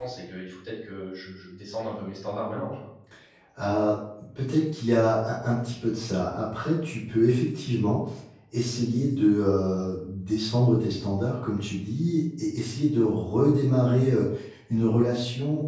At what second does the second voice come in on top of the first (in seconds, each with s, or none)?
none